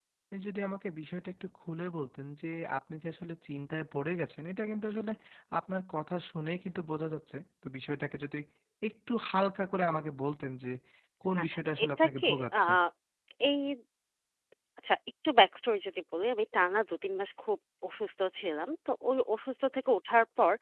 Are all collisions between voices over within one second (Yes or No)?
No